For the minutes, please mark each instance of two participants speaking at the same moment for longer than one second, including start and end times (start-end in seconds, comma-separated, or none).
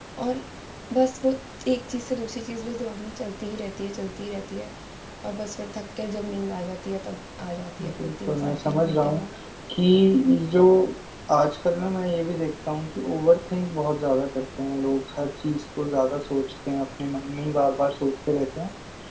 7.8-9.2